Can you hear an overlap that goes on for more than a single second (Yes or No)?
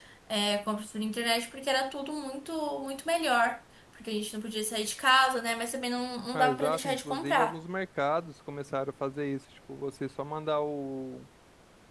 Yes